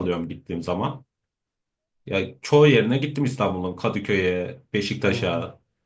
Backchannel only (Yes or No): No